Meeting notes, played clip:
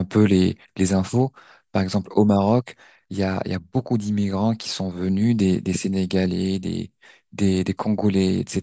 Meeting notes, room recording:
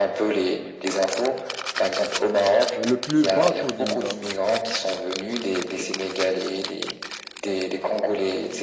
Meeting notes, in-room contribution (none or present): present